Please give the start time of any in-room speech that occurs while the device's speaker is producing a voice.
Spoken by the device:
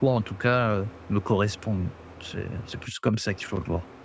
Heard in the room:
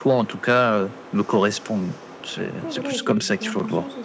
2.4 s

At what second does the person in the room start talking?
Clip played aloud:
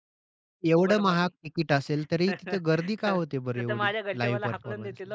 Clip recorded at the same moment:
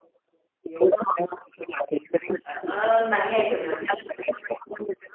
2.5 s

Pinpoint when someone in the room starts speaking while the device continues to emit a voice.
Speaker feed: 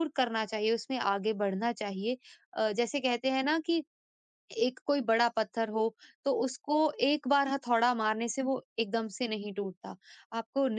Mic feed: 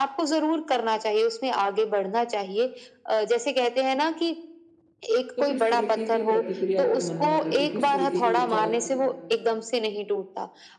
5.4 s

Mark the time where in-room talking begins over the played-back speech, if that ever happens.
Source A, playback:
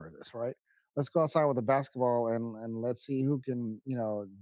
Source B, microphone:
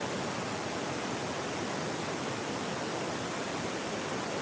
none

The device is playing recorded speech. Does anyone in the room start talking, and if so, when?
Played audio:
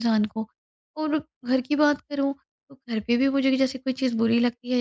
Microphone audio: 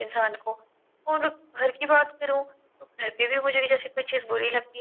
none

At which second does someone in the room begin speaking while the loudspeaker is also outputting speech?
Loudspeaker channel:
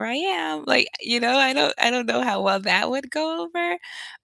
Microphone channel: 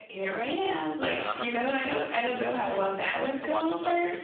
1.0 s

